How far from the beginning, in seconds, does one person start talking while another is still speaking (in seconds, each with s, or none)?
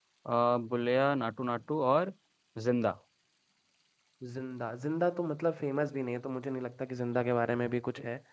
none